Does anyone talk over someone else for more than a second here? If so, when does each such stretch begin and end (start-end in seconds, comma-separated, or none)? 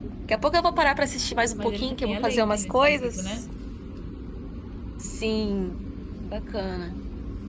1.6-3.4